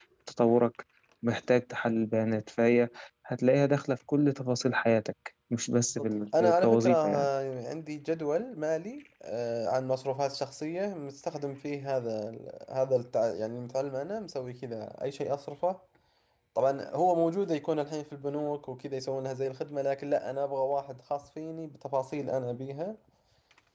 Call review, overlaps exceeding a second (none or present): present